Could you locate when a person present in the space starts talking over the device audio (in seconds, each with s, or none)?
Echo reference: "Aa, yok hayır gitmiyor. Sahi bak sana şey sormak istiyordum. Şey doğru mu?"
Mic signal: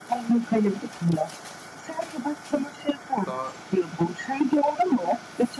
3.2 s